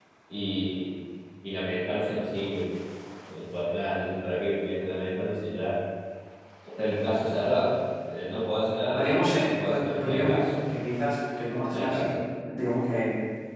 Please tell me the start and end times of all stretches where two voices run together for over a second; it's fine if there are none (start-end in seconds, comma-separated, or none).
8.9-10.6